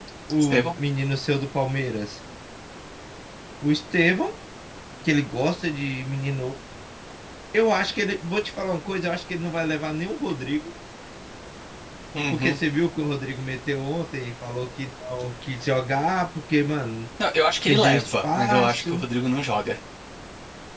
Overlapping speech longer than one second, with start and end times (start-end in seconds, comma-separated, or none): 17.7-19.0